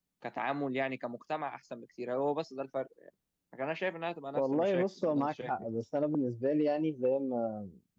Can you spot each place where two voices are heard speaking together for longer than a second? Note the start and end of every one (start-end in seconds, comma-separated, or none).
4.4-5.7